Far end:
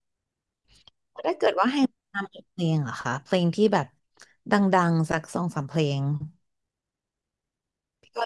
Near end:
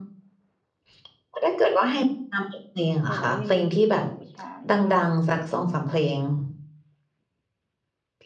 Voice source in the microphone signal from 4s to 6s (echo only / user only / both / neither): both